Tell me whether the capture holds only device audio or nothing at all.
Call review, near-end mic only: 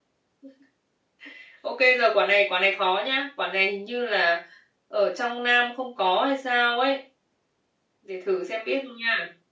Yes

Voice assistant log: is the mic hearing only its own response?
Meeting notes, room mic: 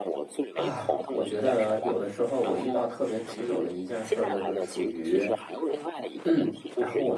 No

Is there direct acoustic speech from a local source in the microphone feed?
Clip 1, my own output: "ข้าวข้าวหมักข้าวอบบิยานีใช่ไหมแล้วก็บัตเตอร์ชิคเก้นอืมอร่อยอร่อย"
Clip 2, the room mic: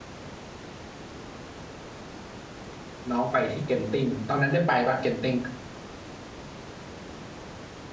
Yes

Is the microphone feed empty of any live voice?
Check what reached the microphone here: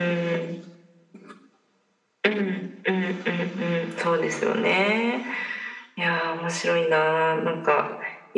Yes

